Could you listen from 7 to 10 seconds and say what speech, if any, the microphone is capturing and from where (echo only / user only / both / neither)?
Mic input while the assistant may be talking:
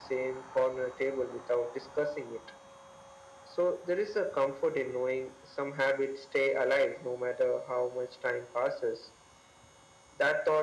echo only